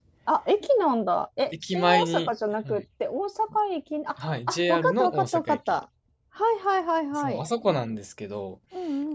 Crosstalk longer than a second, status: present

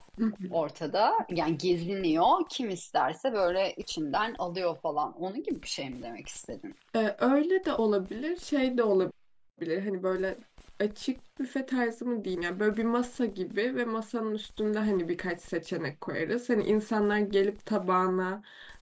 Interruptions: none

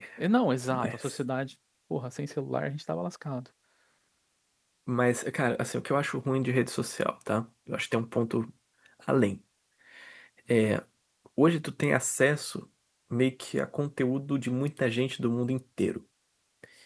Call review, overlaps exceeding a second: none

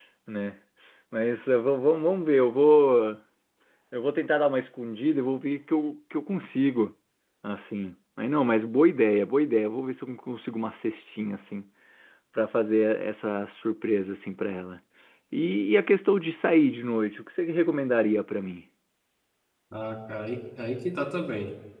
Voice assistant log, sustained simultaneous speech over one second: none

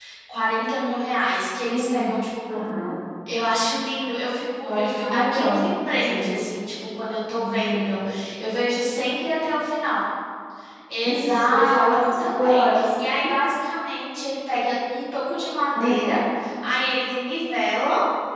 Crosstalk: present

